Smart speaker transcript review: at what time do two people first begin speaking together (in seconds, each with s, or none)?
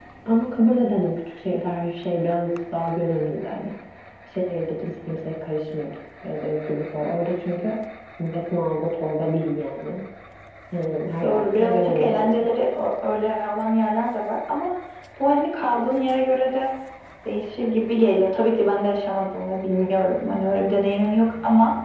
11.2 s